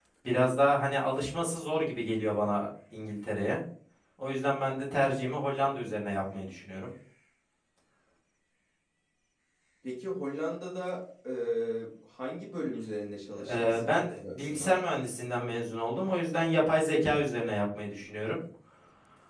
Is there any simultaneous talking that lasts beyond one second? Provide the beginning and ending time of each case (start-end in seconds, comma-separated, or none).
13.4-14.8